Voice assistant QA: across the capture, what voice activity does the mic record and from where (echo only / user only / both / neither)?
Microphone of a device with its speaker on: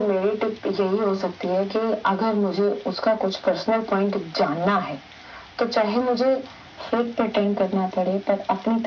echo only